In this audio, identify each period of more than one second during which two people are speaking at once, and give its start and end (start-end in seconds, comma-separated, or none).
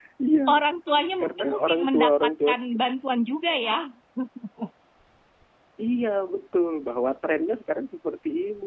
1.2-2.5